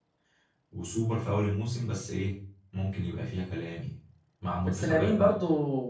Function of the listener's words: taking over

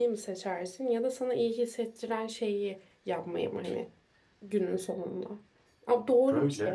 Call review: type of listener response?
listening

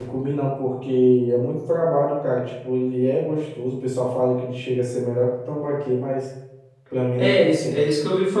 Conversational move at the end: taking over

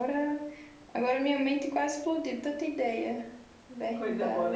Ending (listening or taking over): taking over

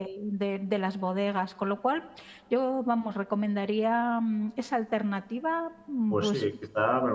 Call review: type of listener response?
taking over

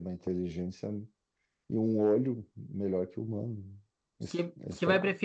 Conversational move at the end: taking over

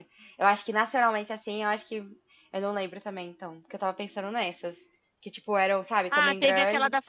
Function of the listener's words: taking over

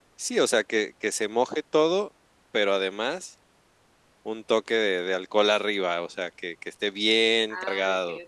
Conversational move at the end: taking over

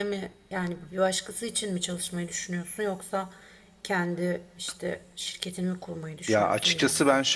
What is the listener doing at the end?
taking over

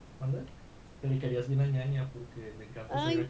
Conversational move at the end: taking over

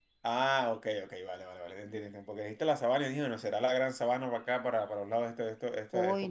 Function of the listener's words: taking over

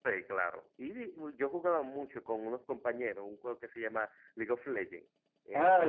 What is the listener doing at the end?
taking over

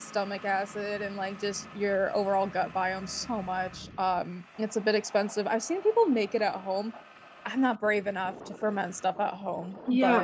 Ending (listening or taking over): taking over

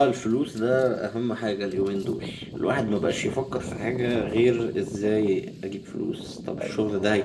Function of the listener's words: listening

